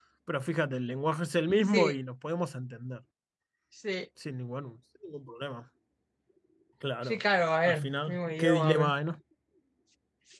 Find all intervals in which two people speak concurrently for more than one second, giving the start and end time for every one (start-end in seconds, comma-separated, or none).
7.7-8.9